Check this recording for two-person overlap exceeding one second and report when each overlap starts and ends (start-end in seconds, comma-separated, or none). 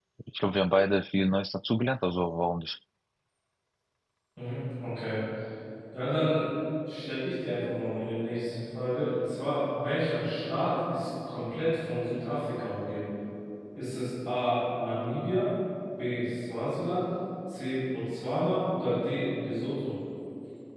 none